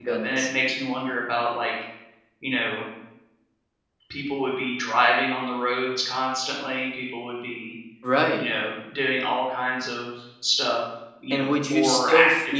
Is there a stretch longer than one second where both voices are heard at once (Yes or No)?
Yes